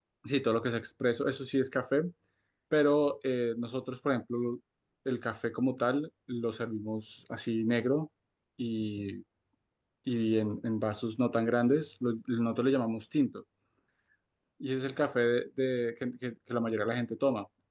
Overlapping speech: No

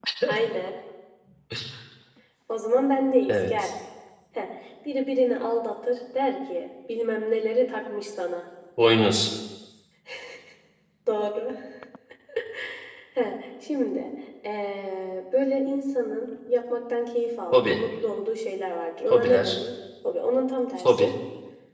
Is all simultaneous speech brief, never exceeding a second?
Yes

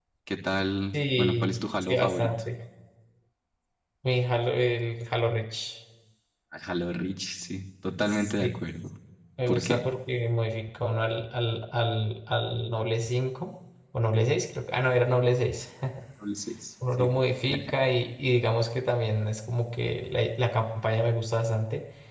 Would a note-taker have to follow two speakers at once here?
Yes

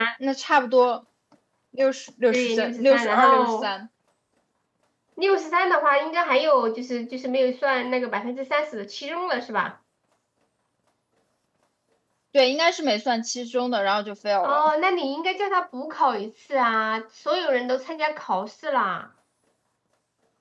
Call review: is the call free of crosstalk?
No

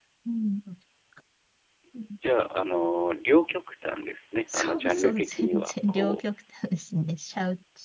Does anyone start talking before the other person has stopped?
Yes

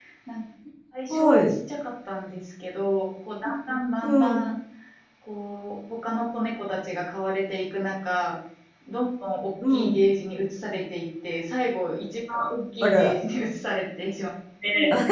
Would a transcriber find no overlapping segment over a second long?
Yes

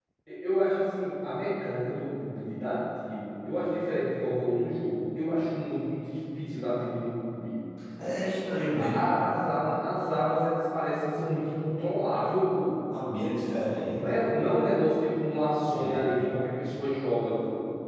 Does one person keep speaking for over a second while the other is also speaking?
No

